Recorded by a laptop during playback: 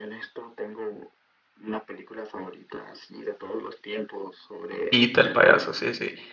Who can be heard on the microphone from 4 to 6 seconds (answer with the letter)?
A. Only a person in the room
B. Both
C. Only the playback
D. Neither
B